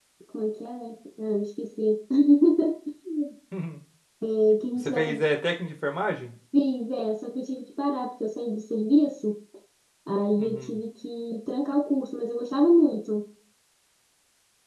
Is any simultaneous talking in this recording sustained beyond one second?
No

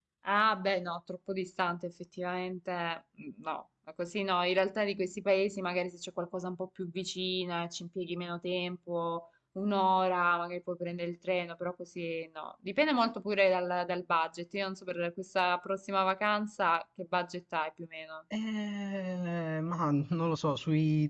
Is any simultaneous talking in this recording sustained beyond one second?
No

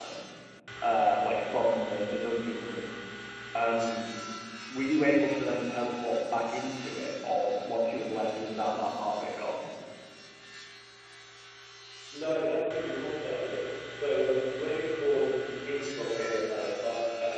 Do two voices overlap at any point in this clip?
No

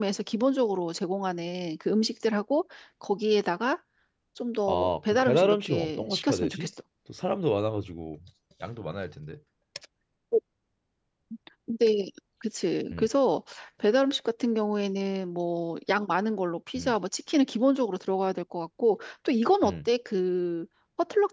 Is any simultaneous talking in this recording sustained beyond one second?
Yes, from 4.7 s

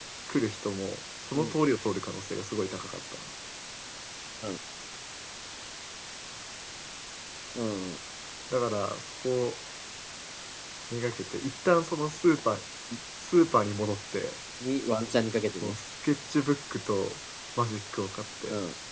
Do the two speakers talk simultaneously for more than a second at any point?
No

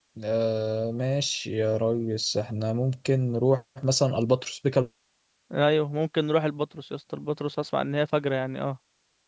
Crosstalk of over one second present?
No

